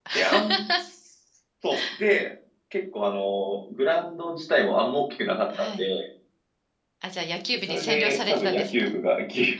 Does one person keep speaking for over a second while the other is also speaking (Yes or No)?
Yes